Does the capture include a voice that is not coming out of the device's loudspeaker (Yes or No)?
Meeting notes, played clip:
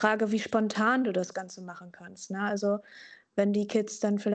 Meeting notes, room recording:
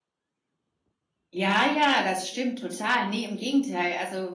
Yes